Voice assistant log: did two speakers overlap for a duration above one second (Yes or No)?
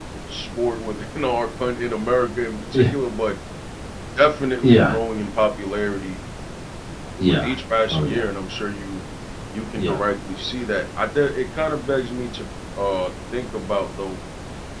No